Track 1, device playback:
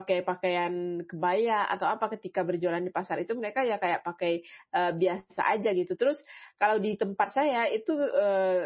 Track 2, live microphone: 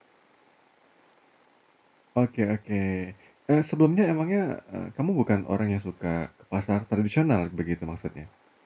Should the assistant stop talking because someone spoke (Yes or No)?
Yes